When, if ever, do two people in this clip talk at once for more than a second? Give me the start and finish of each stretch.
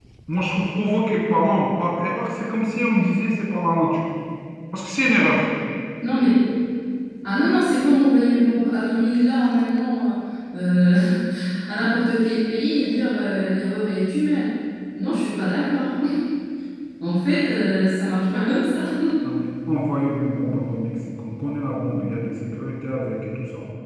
none

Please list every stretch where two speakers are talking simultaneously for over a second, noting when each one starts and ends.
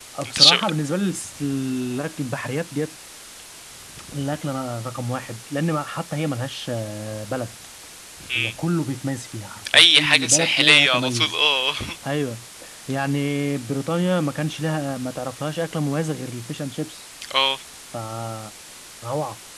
9.8-11.4

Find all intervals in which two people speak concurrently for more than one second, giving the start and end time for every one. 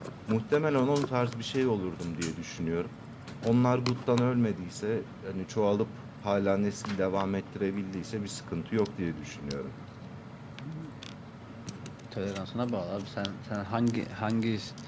none

